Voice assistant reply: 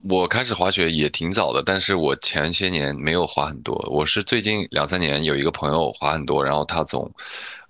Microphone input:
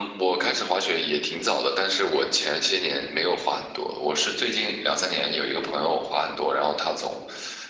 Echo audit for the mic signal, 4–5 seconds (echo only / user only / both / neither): echo only